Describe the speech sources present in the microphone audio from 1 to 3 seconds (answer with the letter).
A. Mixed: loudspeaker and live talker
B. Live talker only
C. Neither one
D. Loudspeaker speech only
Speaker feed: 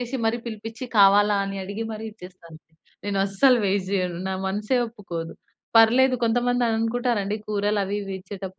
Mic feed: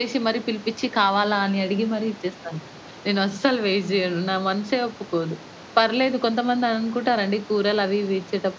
D